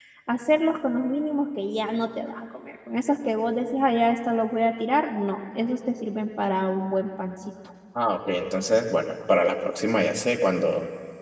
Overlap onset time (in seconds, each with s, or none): none